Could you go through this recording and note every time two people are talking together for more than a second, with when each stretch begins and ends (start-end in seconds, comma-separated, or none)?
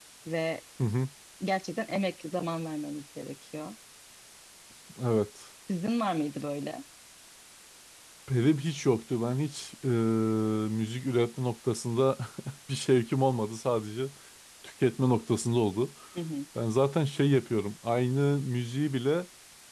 none